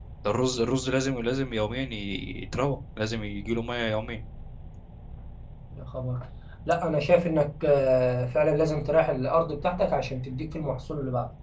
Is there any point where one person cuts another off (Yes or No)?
No